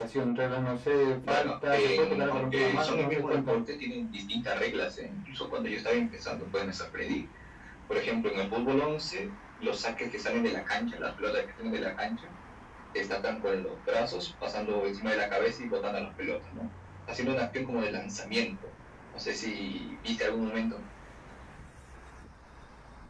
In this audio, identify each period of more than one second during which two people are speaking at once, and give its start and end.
1.2-3.6

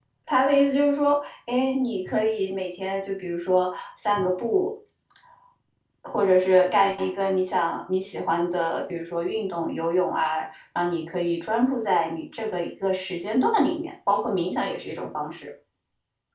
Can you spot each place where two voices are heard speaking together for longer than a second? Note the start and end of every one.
none

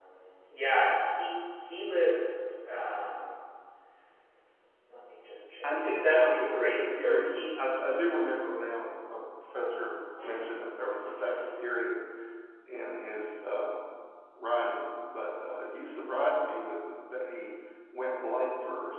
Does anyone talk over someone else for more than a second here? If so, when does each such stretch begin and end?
5.6-7.5

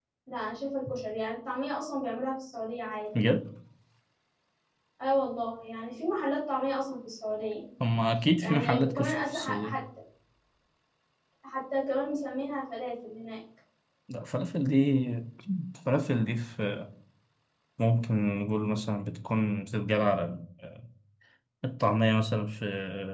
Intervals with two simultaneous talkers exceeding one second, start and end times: 8.4-9.8

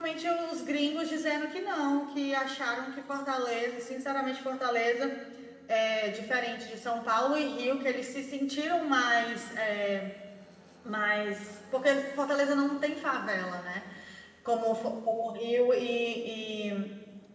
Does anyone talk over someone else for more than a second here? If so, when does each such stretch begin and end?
none

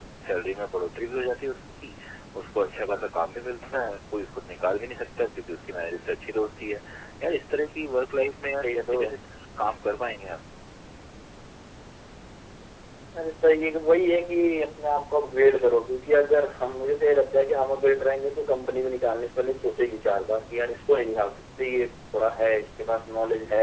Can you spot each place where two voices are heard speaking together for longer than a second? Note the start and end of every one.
none

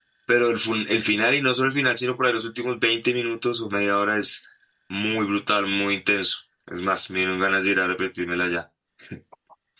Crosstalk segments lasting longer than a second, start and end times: none

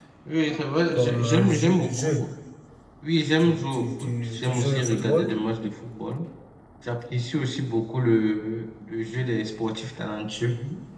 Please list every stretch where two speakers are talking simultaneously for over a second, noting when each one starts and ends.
0.9-2.2, 3.4-5.3

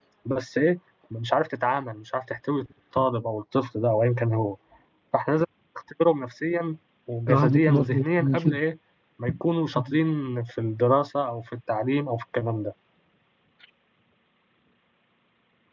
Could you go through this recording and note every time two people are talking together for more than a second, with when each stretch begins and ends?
7.3-8.6

